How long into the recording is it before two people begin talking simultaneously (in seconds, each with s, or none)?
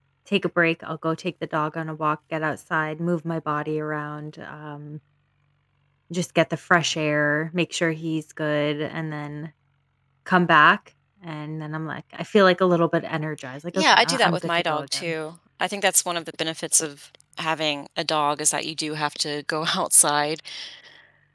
13.7 s